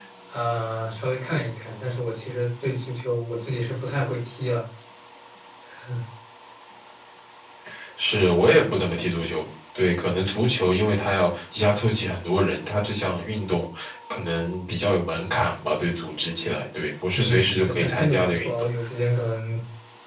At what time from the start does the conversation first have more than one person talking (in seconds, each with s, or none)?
17.1 s